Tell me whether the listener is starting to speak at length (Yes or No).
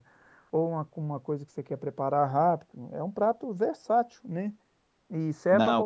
No